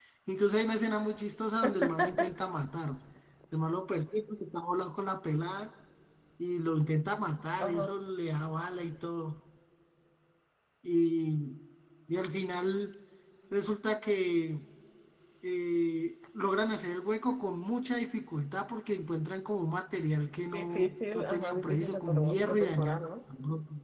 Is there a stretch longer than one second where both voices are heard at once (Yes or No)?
Yes